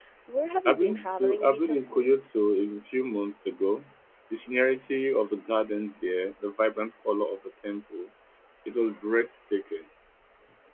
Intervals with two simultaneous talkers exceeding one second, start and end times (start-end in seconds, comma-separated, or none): 0.7-2.1